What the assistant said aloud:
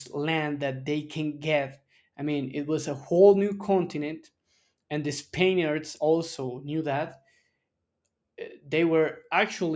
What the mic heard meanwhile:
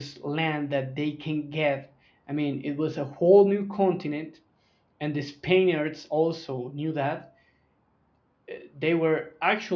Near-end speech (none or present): none